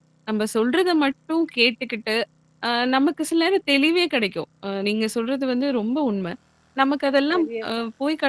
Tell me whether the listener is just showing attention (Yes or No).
Yes